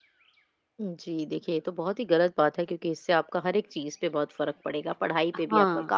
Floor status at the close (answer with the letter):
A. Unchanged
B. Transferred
A